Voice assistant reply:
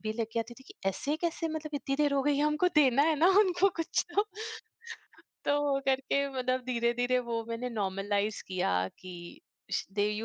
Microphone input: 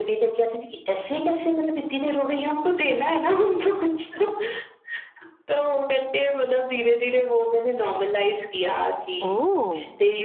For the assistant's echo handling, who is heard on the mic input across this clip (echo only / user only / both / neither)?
both